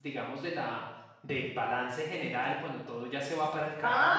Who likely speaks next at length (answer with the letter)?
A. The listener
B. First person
A